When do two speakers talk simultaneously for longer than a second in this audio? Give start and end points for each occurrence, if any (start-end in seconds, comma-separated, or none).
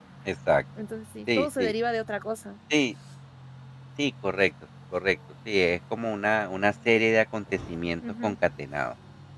none